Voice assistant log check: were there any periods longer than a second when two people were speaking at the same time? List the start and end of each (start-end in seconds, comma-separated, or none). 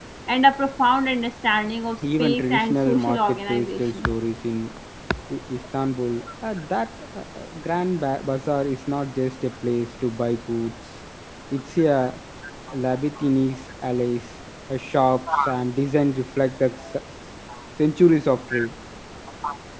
2.2-4.0